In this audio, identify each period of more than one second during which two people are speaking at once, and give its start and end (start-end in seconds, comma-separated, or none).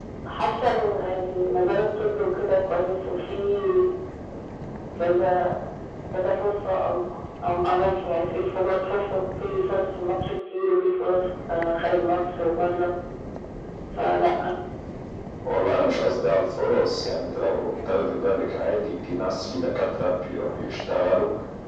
none